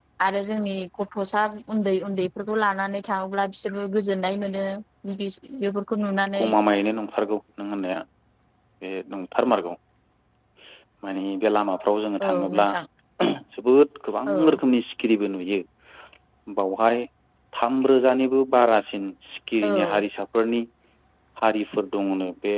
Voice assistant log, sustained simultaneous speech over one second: none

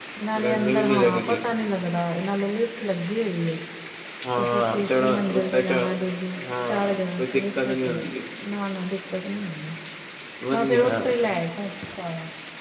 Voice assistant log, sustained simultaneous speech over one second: present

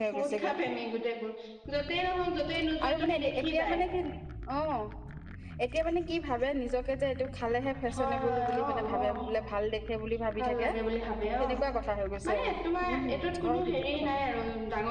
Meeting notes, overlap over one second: present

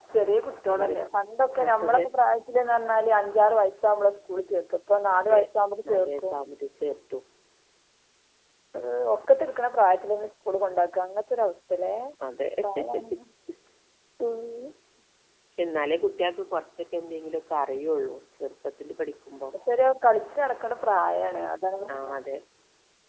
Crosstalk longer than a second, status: none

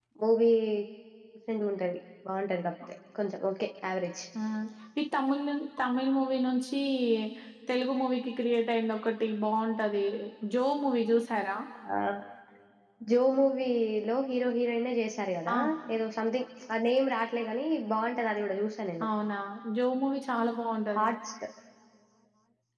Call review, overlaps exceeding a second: none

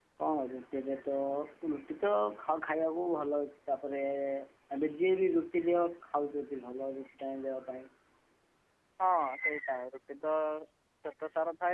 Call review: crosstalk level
none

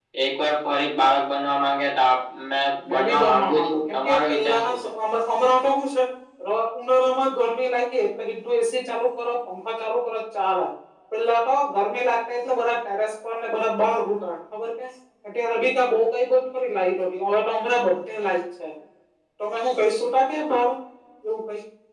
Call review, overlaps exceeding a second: present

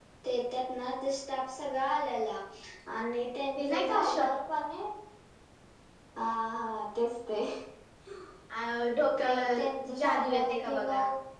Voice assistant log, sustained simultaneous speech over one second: present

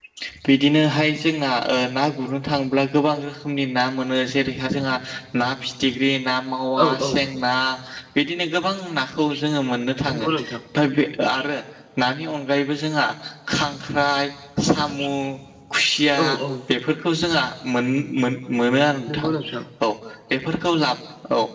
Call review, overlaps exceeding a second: none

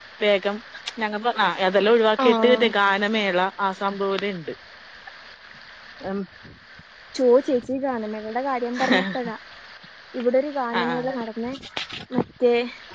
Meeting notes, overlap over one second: none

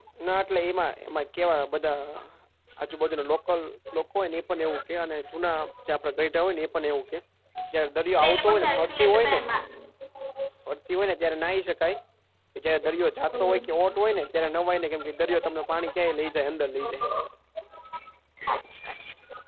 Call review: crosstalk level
present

